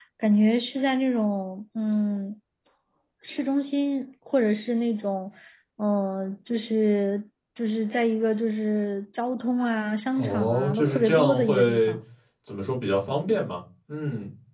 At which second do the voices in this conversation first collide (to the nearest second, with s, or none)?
10 s